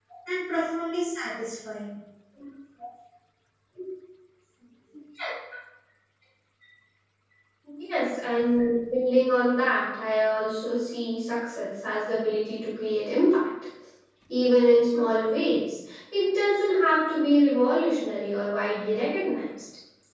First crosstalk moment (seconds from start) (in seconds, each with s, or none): none